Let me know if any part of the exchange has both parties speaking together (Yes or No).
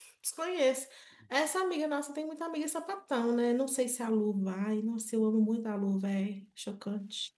No